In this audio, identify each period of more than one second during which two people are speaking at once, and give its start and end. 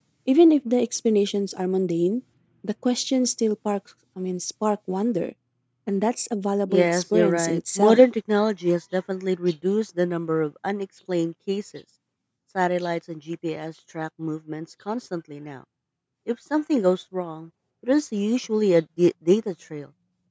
6.7-8.0

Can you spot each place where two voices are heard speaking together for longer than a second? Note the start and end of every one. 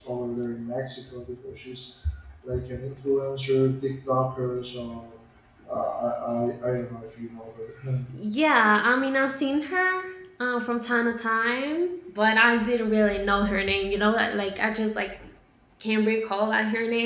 none

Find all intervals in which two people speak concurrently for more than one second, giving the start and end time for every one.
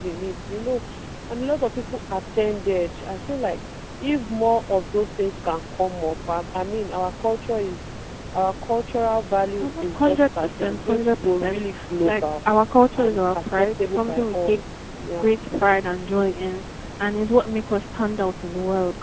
9.6-12.2, 13.0-14.6

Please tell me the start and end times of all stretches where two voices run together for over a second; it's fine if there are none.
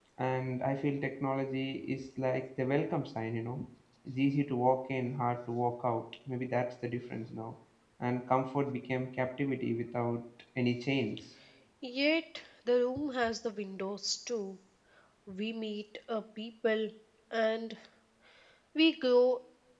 none

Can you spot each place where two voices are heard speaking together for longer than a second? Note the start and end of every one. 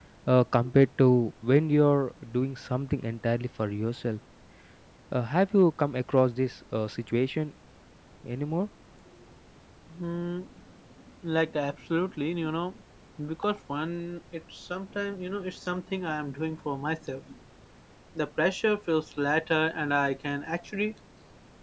none

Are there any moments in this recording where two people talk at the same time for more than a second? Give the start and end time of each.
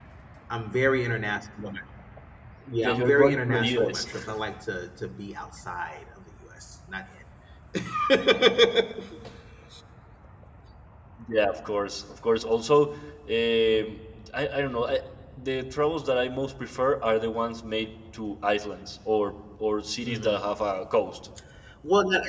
2.8-4.1

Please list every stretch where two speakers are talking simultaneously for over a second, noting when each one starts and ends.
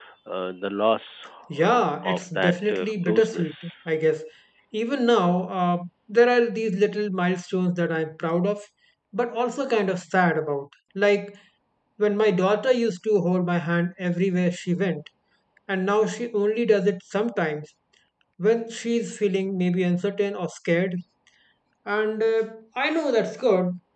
1.6-3.5

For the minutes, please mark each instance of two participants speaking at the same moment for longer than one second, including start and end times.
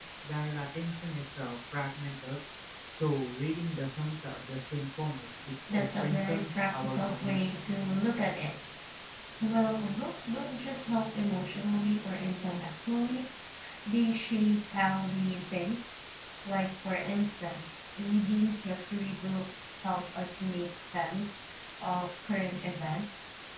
5.7-7.5

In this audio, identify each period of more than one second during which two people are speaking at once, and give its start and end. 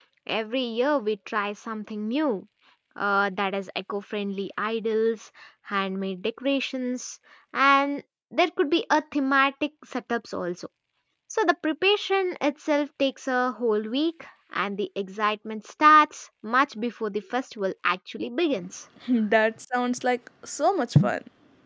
none

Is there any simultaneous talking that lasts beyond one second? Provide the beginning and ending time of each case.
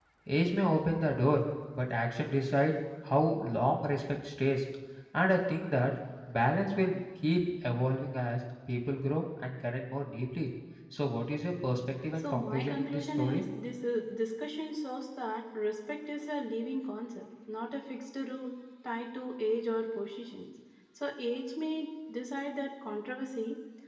12.2-13.4

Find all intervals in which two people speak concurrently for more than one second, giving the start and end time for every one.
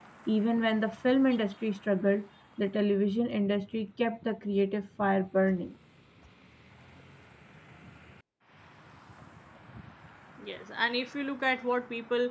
none

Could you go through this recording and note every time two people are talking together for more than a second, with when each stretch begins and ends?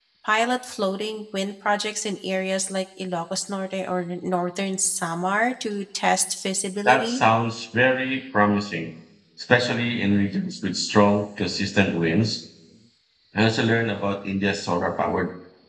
none

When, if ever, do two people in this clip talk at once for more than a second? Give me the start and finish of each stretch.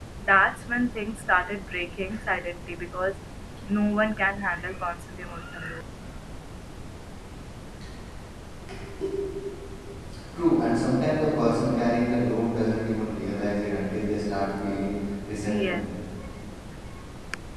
none

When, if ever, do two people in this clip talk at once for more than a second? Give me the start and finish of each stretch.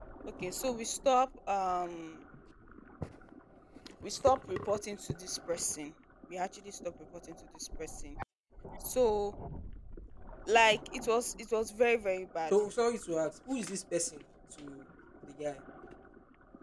none

